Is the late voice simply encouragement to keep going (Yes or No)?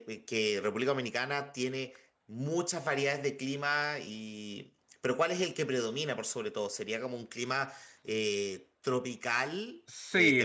No